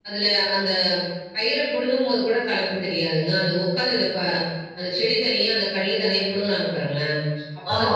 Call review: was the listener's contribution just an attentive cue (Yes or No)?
Yes